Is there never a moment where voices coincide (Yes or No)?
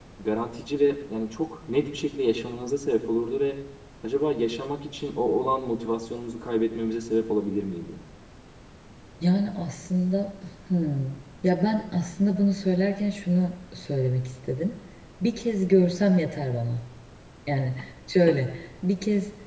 Yes